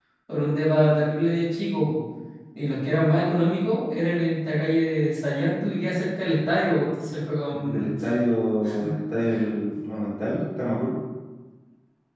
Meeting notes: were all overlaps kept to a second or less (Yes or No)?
Yes